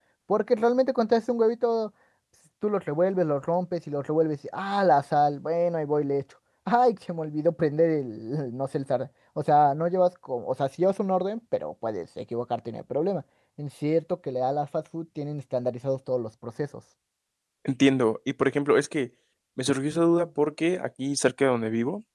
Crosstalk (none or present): none